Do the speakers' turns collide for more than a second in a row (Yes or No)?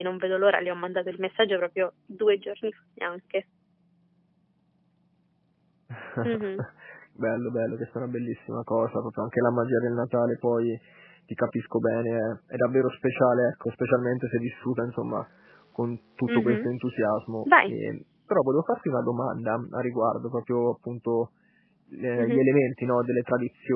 No